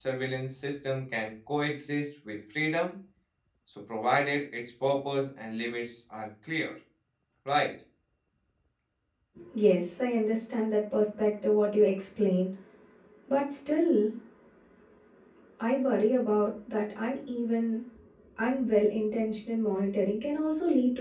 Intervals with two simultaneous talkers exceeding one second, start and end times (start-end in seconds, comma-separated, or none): none